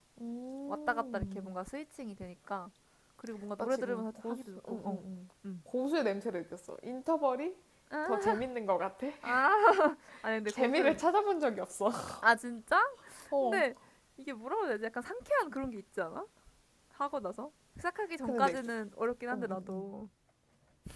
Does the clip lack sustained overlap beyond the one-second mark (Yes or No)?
No